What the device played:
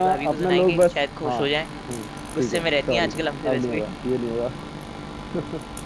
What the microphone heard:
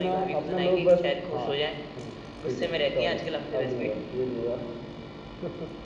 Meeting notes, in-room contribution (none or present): none